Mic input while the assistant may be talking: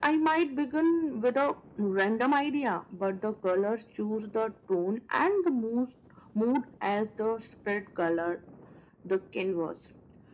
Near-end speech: none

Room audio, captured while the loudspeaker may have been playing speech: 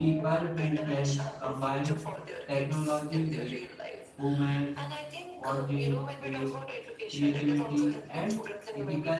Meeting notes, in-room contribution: present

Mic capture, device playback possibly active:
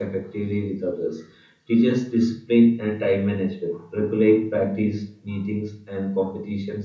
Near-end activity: present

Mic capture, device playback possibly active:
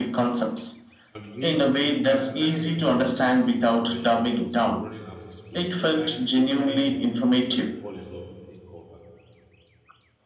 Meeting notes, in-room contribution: present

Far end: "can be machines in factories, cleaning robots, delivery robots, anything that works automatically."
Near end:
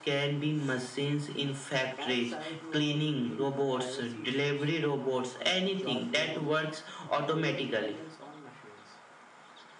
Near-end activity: present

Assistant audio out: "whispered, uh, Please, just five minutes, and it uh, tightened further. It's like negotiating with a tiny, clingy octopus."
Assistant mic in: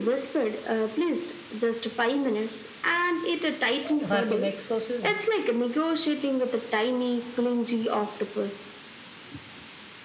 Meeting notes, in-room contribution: present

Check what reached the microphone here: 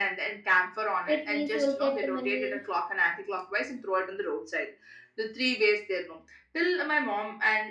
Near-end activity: present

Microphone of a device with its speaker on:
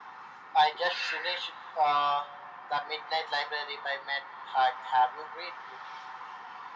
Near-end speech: none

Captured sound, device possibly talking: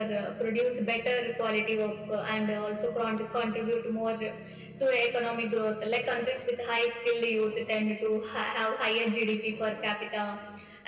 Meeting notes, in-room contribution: none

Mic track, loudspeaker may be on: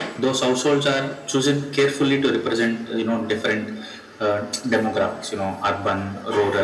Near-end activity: none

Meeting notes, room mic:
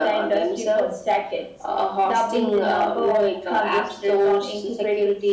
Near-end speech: none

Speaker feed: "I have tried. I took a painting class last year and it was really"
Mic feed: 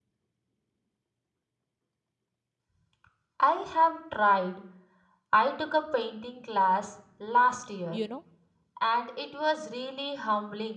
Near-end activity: present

